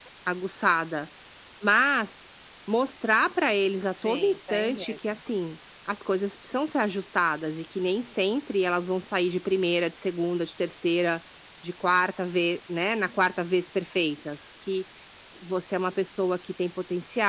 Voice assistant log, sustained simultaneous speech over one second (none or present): present